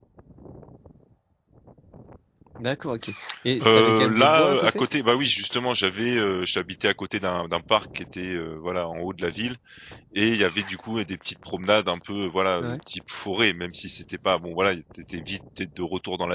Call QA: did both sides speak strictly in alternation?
No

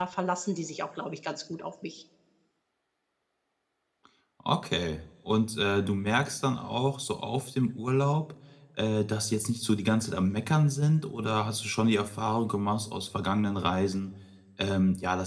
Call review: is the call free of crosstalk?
Yes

